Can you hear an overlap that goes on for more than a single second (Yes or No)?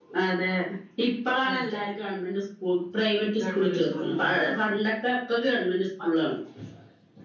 Yes